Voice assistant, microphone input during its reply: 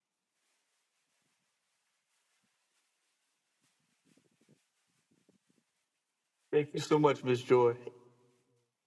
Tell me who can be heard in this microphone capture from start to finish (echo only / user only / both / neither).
user only